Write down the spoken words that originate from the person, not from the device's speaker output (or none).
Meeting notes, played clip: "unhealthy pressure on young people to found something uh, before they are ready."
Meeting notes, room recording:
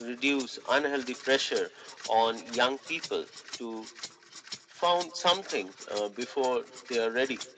none